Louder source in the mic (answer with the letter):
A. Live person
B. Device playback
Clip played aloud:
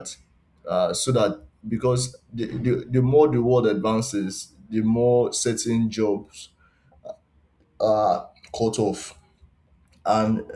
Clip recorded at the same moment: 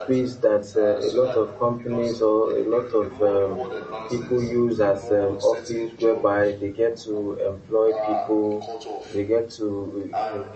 A